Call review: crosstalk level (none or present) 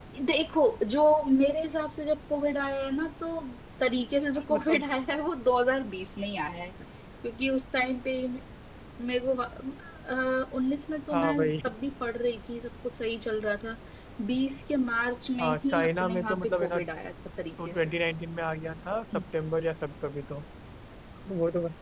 present